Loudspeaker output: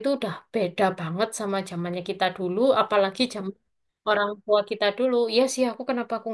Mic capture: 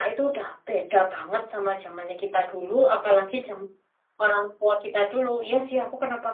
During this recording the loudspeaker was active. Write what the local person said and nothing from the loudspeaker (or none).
none